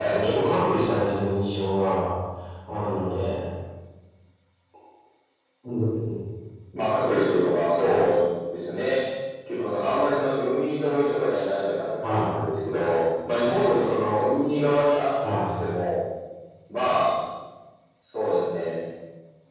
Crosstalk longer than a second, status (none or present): none